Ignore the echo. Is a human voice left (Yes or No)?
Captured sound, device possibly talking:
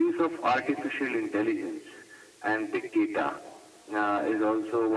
No